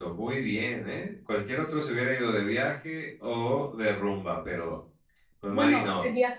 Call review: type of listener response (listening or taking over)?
taking over